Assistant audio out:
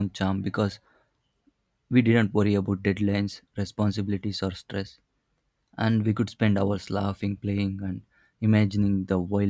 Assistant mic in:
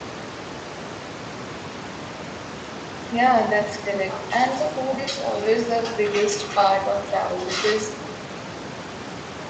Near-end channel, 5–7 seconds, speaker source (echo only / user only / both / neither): user only